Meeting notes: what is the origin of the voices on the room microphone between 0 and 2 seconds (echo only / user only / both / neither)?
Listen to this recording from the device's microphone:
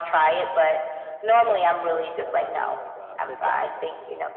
both